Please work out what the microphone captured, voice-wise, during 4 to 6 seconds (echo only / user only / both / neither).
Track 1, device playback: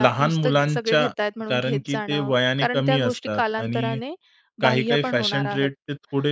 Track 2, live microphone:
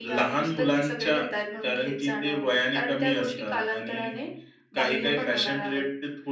echo only